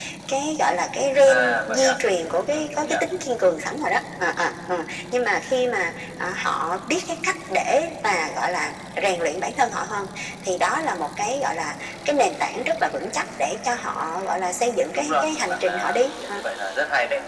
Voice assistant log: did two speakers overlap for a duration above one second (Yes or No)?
Yes